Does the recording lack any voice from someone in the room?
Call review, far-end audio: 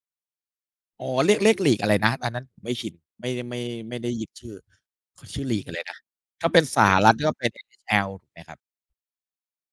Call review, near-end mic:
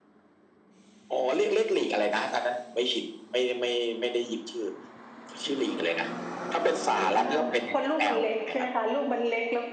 No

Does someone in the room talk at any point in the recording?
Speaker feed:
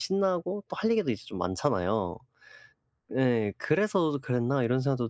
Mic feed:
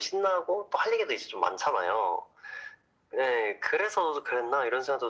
No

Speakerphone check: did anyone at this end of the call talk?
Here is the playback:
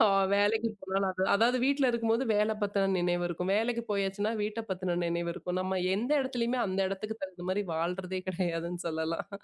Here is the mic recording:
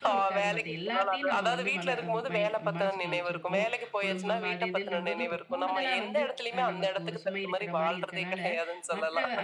Yes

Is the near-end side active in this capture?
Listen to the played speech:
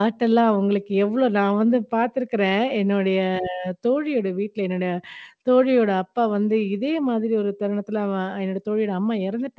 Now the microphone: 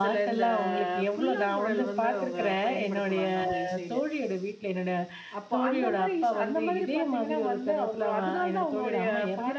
Yes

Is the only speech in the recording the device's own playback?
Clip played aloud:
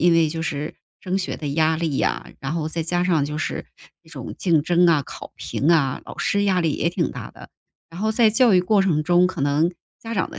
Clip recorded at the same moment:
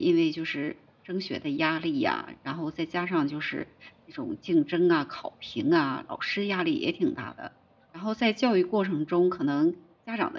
Yes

